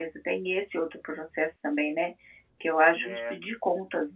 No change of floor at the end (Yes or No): Yes